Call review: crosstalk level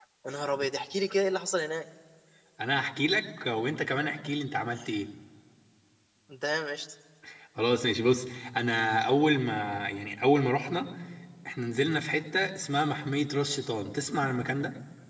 none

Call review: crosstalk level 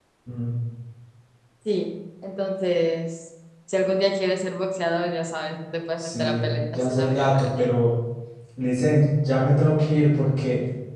present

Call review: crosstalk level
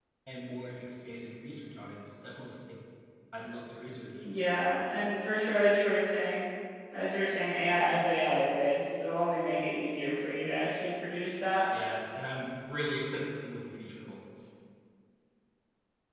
none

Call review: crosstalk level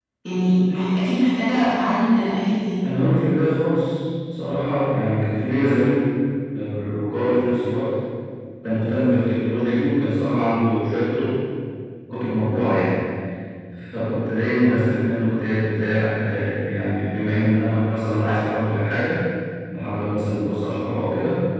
none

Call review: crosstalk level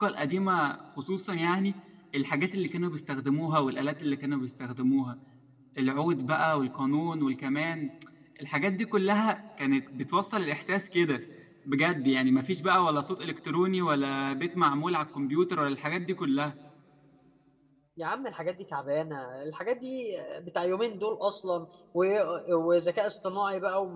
none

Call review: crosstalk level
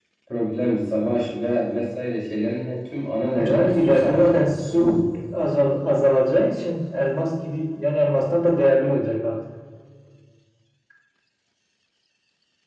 present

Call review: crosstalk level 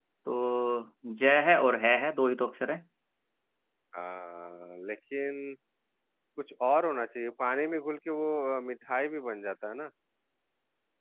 none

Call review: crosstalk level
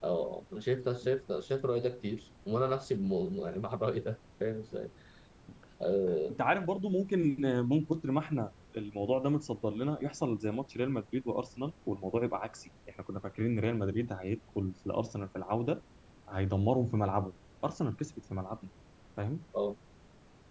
none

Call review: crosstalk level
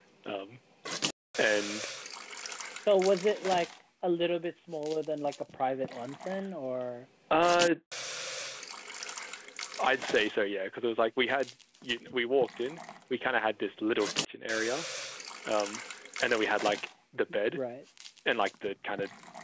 none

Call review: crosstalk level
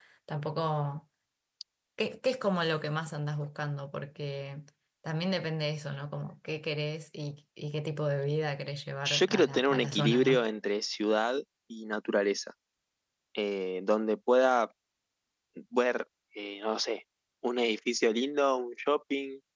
present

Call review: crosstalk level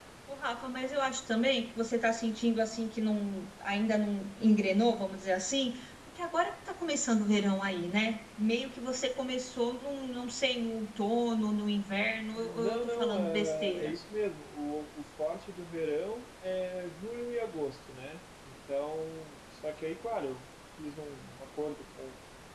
present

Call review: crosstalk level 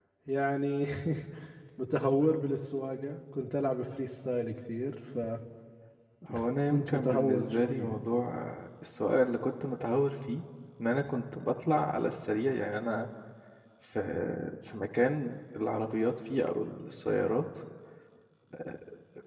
present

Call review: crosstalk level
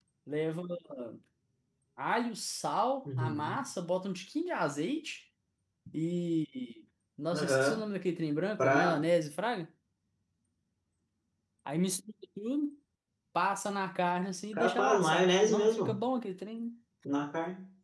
present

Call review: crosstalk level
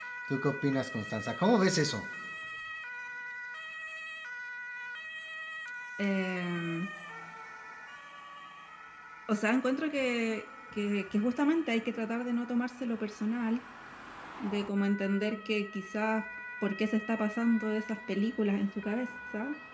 none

